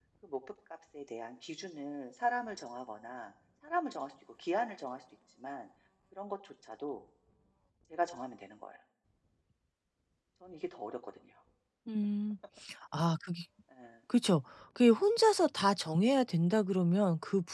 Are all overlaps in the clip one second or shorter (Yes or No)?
Yes